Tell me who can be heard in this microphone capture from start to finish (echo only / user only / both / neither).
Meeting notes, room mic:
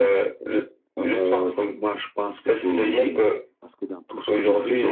both